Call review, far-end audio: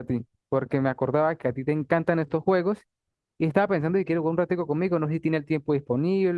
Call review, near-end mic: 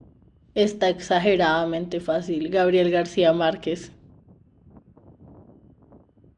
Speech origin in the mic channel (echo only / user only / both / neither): user only